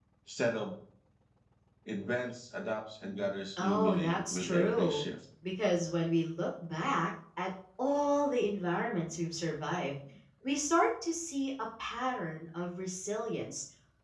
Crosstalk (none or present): present